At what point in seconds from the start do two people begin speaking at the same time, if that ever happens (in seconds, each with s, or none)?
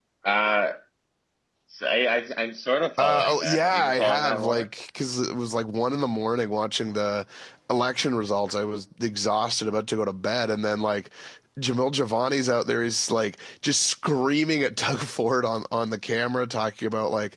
3.0 s